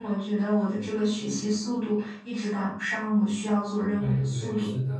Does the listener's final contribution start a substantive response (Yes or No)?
Yes